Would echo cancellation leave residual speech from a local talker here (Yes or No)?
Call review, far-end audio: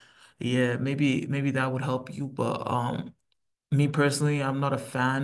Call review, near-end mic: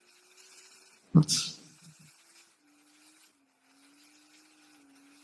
Yes